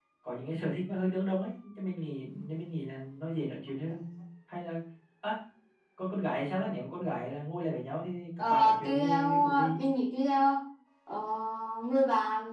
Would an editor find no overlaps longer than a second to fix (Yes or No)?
No